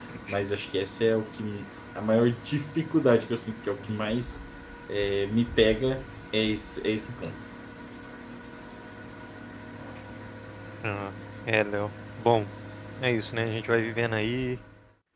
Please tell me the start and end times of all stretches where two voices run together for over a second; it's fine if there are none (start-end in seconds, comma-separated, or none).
none